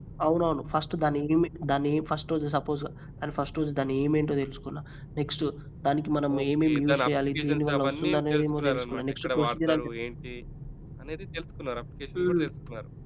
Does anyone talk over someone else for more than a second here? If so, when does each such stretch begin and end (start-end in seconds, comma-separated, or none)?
6.4-9.9